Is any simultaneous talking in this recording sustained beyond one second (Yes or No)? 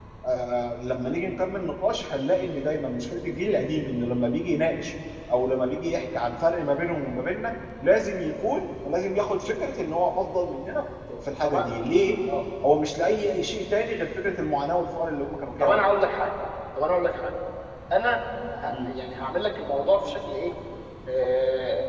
No